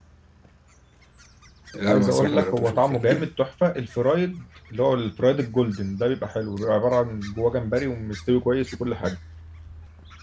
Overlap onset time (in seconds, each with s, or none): 1.9 s